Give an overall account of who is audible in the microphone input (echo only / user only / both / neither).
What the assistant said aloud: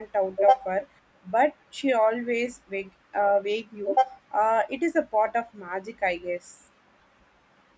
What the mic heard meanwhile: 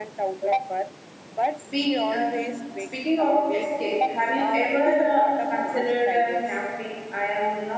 both